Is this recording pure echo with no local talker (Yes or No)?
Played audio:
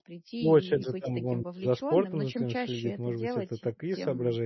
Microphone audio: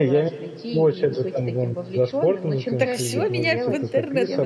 No